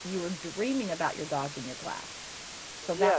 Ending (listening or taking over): taking over